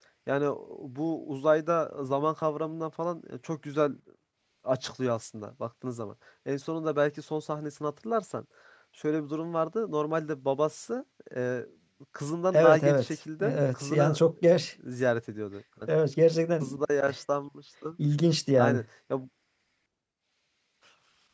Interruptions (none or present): present